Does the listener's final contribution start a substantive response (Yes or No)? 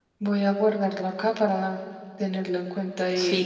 Yes